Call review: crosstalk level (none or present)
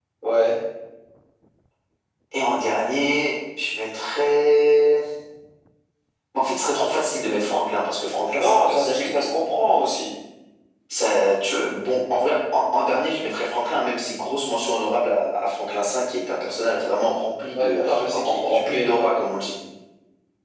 present